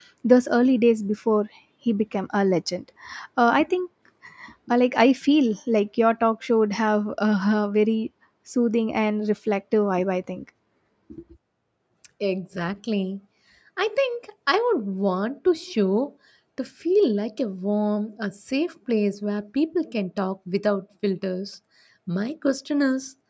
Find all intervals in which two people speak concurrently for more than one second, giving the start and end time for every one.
none

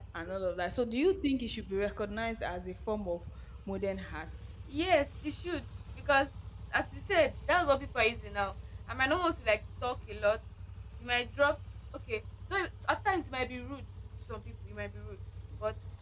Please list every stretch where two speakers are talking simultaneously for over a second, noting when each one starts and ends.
none

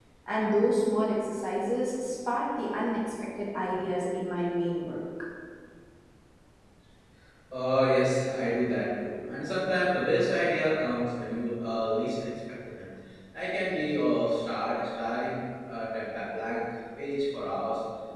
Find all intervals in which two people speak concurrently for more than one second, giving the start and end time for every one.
none

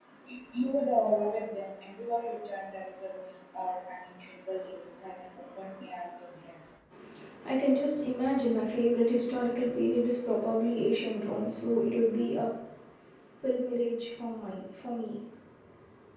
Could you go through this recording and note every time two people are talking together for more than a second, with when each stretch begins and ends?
none

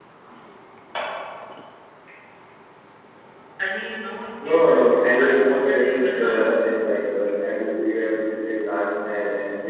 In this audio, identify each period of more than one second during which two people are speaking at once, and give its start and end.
4.4-6.4

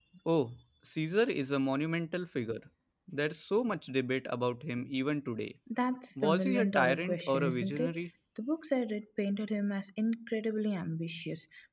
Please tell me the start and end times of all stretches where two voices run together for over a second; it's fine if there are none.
6.2-8.0

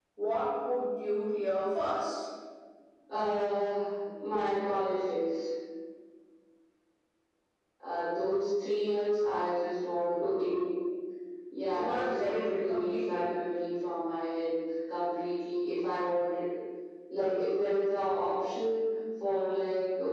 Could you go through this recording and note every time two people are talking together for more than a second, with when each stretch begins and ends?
11.7-13.2

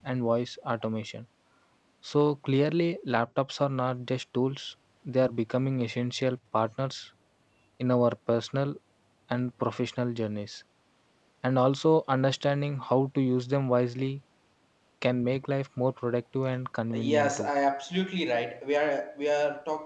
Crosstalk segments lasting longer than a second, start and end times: none

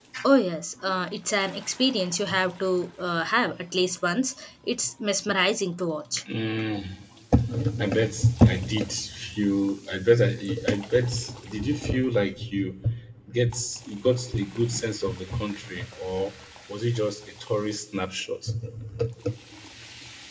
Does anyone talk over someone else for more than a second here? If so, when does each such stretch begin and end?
none

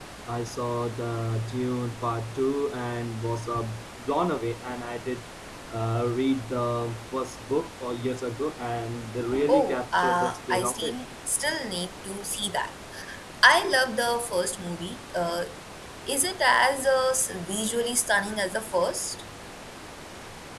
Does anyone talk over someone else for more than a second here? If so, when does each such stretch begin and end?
9.5-11.0

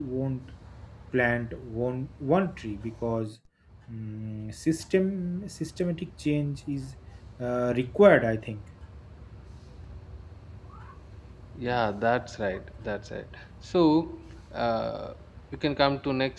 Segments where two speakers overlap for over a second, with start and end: none

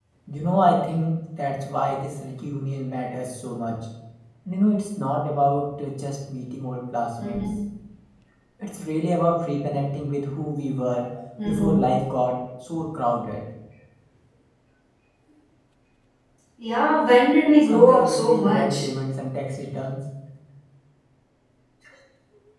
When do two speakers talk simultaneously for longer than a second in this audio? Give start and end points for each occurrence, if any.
17.6-18.9

